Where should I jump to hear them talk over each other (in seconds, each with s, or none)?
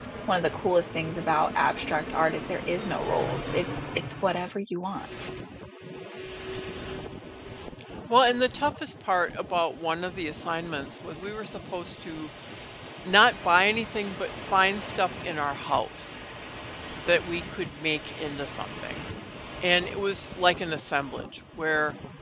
none